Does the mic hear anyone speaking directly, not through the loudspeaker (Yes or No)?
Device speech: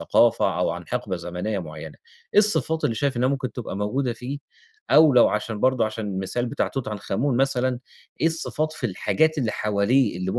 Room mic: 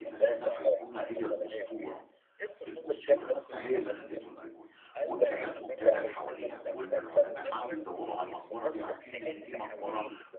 Yes